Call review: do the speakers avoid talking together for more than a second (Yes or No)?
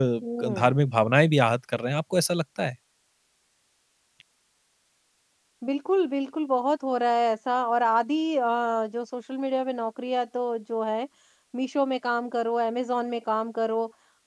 Yes